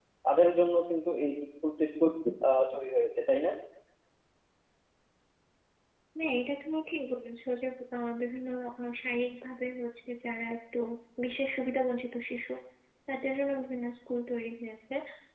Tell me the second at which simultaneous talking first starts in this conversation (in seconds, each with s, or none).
none